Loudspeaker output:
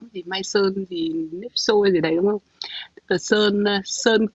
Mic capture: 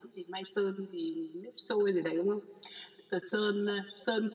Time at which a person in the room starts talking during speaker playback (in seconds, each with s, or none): none